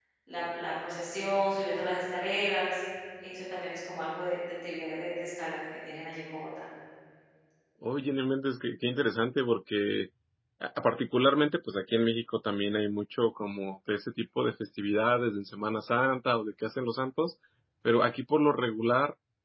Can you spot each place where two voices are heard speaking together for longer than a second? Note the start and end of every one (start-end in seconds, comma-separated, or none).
none